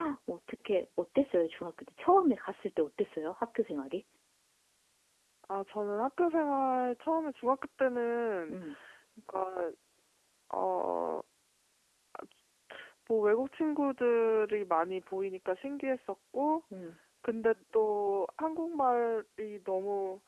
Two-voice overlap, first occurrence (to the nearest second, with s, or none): none